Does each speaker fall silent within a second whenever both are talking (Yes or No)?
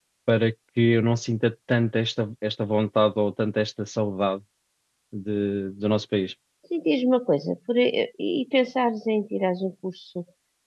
Yes